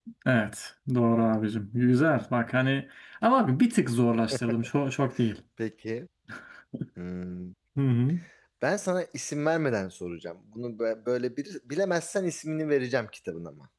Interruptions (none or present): none